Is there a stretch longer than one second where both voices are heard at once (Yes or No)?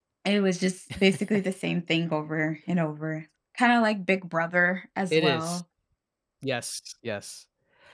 No